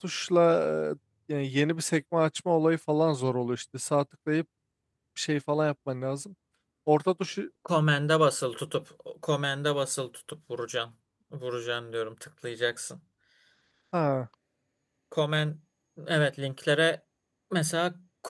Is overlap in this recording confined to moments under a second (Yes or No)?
Yes